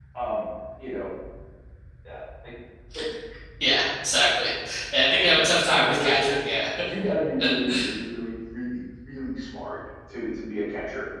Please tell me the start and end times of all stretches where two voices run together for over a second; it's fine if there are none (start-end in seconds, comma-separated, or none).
5.1-6.4